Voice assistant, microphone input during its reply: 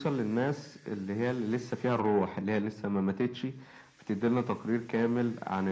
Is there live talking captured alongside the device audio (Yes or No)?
No